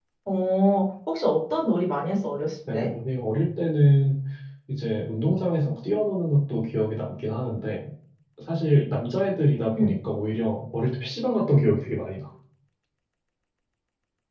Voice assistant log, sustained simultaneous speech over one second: none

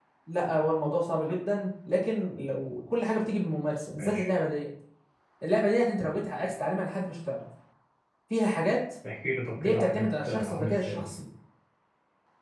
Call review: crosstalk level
present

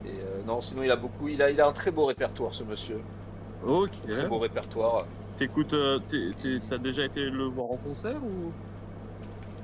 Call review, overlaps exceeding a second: none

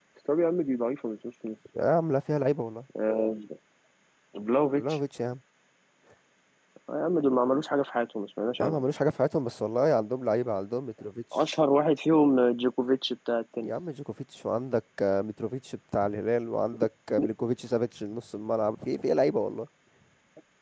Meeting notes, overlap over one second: none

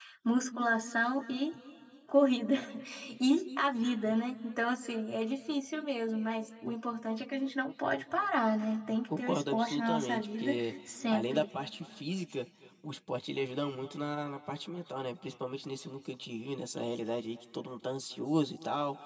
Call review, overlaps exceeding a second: present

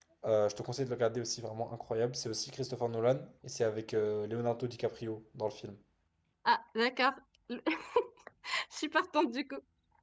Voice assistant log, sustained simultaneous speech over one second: none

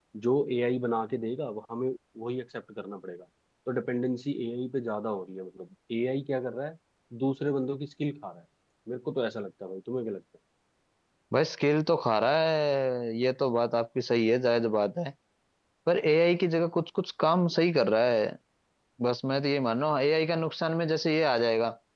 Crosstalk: none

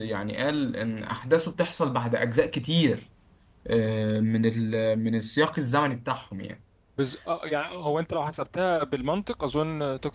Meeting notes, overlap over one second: none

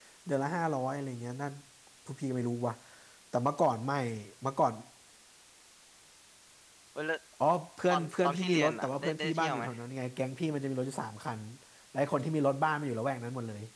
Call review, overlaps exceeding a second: present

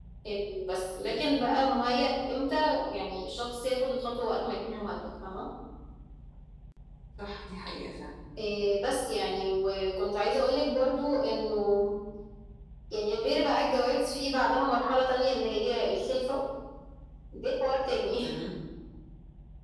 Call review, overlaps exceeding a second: none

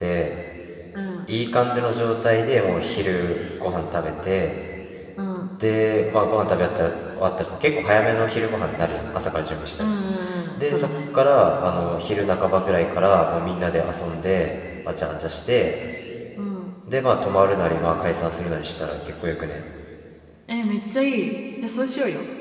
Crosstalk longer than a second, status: none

